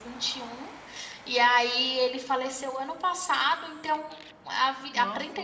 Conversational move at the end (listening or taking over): listening